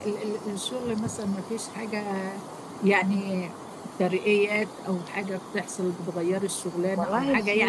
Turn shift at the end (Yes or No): No